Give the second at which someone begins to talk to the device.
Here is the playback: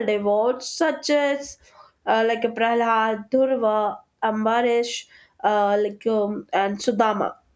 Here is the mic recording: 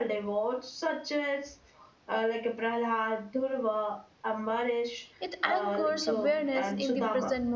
5.2 s

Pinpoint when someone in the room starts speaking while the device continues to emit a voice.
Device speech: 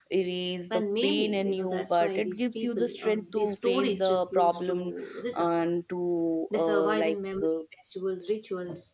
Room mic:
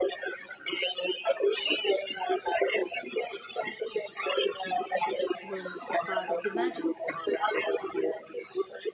5.4 s

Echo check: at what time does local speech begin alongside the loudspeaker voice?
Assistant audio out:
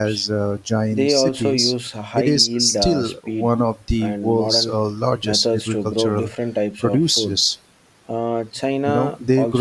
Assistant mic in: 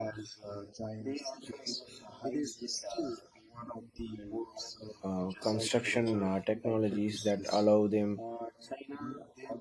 5.0 s

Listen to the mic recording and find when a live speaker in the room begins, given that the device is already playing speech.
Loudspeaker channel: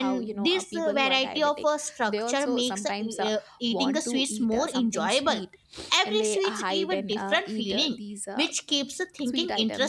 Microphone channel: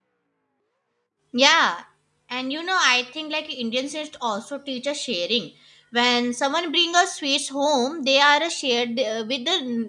1.3 s

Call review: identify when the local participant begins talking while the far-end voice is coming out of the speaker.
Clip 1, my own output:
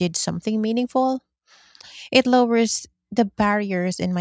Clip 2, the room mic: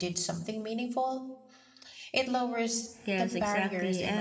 3.0 s

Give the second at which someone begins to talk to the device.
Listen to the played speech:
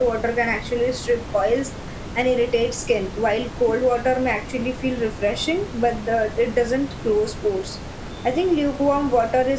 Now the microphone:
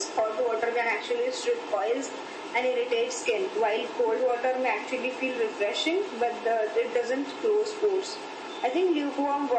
none

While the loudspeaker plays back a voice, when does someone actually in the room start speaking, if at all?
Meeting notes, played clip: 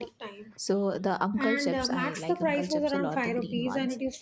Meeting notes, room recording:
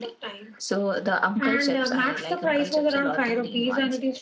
none

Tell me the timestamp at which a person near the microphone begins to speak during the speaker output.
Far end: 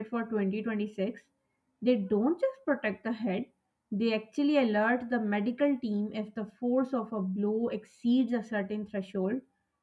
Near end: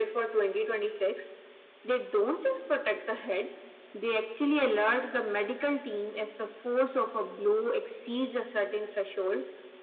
none

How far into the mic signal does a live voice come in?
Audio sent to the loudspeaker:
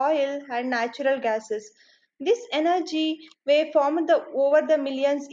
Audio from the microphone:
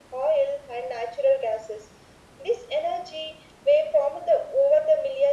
none

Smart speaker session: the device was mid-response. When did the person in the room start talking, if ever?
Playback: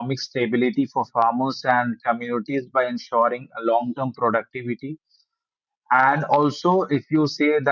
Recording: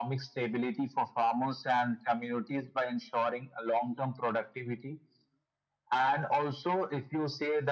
none

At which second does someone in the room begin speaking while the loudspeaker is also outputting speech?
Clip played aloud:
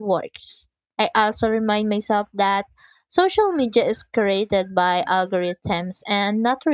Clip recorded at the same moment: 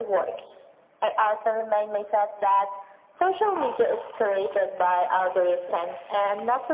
none

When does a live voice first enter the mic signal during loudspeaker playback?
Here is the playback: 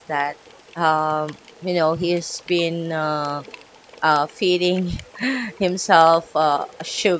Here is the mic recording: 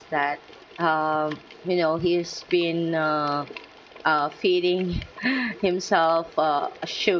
none

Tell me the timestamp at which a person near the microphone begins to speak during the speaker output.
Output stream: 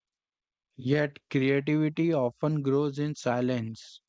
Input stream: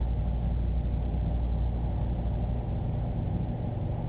none

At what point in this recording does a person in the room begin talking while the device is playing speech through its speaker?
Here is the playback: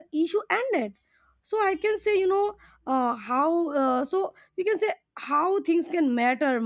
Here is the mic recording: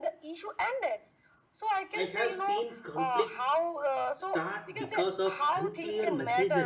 2.0 s

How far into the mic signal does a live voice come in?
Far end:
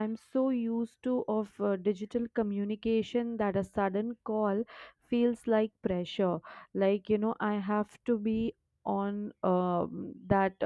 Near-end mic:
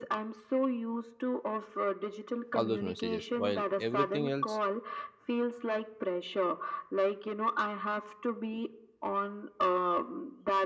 2.5 s

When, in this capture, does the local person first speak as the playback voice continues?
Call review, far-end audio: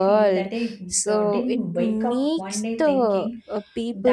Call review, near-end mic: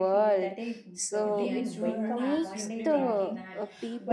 1.2 s

